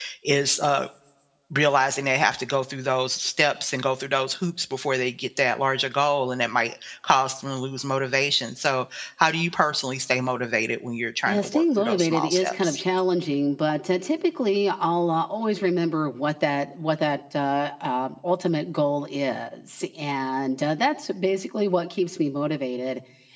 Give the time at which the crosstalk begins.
11.2 s

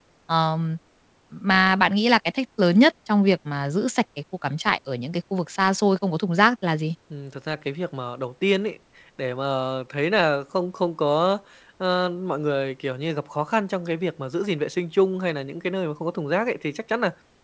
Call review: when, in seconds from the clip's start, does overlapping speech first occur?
none

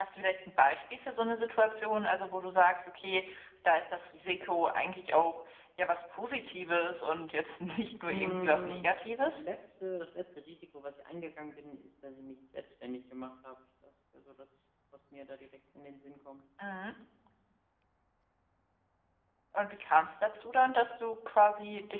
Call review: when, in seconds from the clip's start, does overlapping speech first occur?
8.1 s

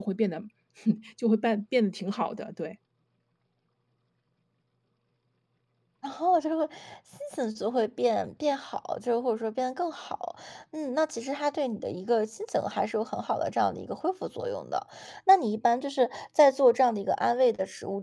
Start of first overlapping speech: none

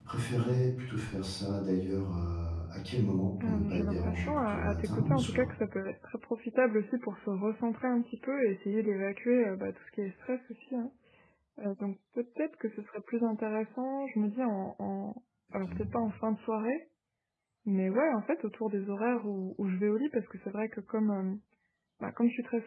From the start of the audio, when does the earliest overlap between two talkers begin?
3.4 s

